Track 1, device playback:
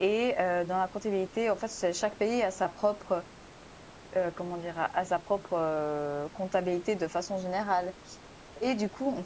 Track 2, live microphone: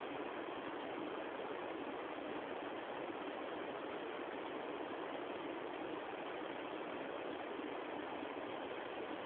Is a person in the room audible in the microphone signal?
No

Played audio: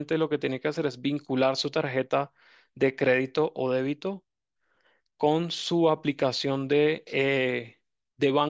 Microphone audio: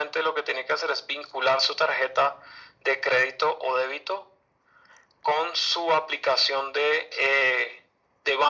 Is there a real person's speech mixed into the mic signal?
No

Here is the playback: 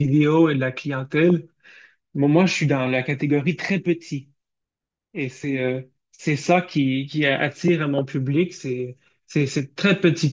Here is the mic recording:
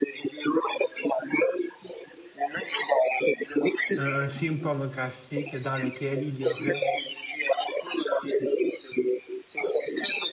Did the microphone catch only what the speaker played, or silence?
No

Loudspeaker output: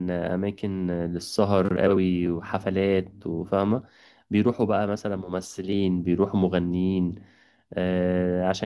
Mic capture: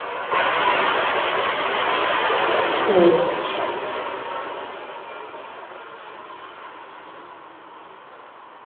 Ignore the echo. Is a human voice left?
Yes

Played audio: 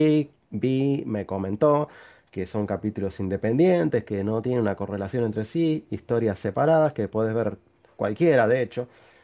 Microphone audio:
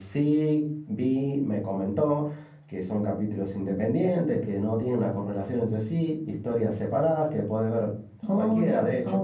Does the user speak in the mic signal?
Yes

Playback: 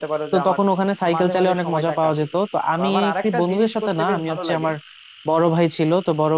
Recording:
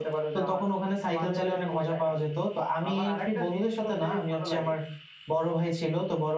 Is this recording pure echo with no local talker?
Yes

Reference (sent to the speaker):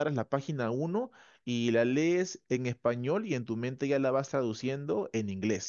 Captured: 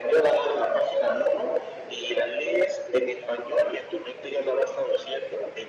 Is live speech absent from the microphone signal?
Yes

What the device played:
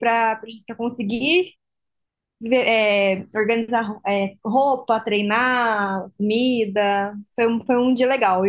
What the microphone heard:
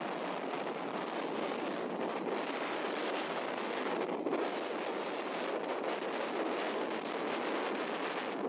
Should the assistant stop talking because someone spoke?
No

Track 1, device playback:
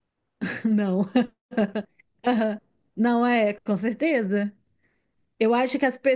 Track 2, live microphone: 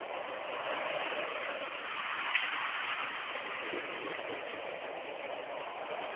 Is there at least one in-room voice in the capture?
No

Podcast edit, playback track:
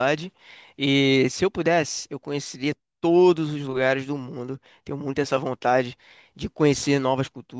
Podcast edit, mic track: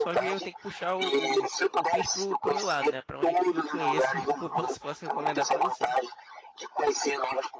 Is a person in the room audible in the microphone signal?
Yes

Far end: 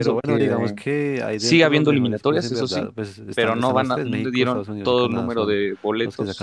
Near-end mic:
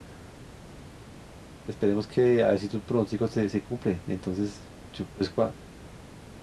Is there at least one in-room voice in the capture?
Yes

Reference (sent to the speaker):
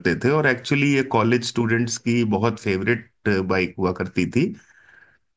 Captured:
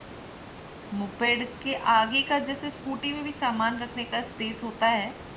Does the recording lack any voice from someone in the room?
No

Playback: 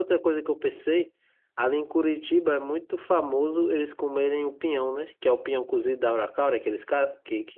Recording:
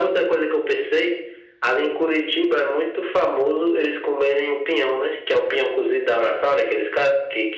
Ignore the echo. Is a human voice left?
No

